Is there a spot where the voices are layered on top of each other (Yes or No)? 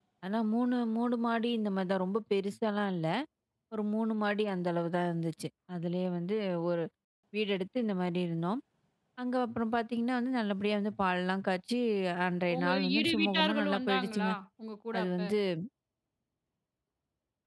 Yes